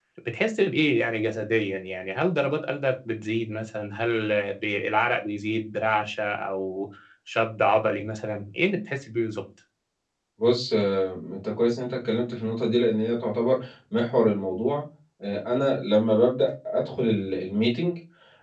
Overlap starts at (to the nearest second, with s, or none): none